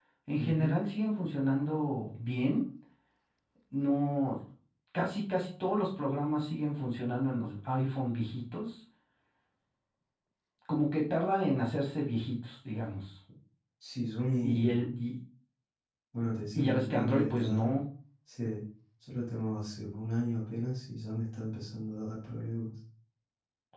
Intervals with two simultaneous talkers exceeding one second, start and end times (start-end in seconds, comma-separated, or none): 16.6-17.8